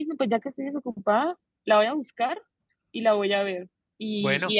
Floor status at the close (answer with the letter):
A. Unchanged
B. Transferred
A